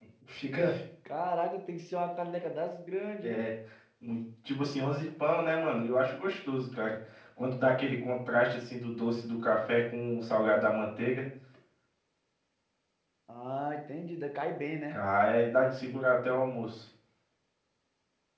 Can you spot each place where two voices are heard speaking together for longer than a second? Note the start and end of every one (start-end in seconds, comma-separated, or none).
none